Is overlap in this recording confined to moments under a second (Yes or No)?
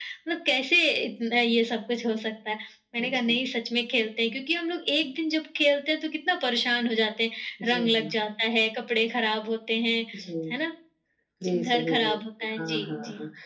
No